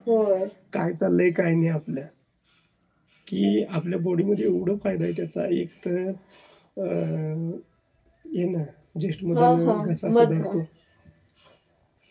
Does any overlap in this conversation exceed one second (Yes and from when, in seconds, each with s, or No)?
Yes, from 9.3 s